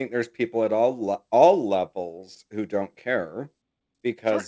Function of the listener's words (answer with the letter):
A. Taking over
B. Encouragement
B